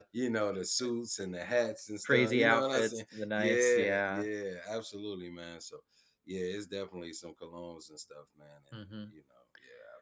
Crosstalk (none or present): present